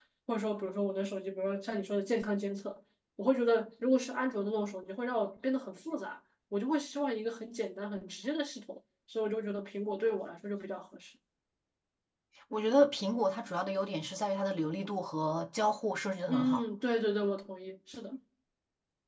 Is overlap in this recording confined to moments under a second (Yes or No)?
Yes